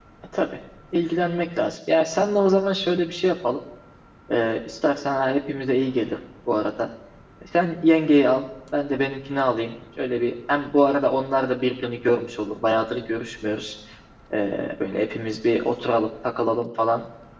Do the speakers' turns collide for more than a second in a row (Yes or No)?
No